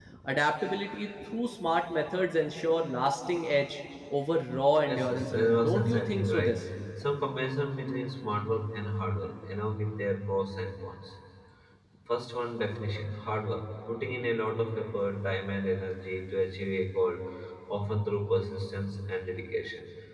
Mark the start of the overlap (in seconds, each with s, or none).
4.9 s